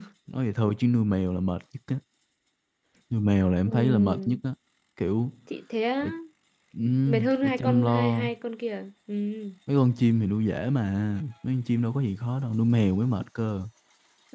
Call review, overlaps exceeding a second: present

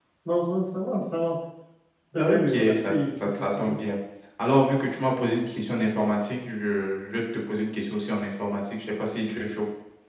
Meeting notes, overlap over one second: present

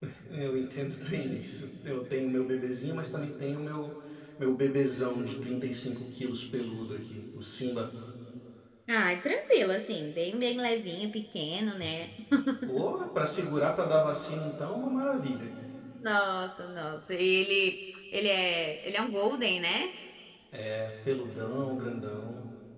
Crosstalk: none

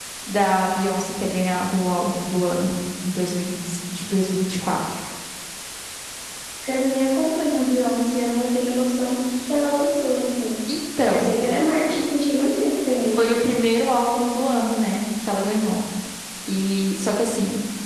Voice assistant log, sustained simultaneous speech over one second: none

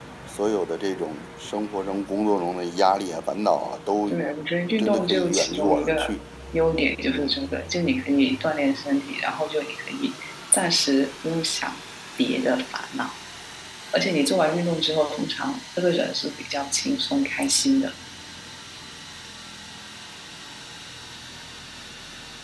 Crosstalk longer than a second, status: present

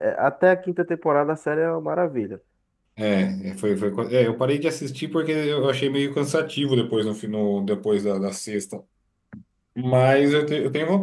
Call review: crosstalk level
none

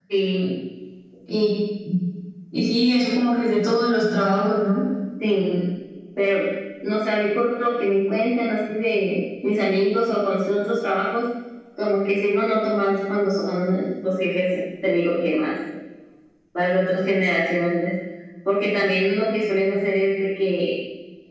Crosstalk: none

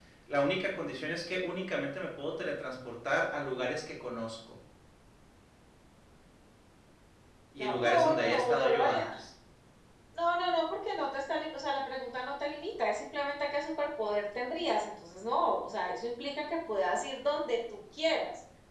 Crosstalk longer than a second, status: present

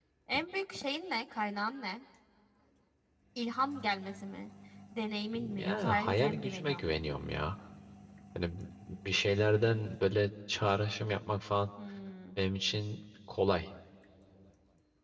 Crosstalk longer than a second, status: present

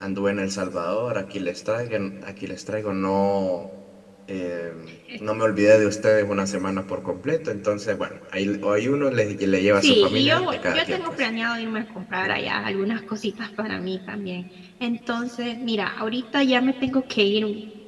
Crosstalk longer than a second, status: present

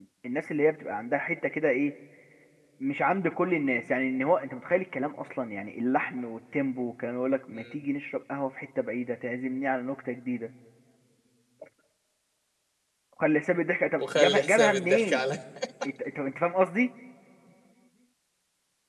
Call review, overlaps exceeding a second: present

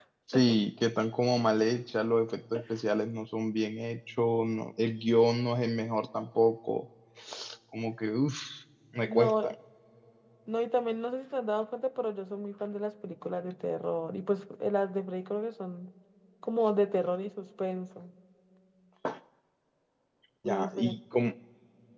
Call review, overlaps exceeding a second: none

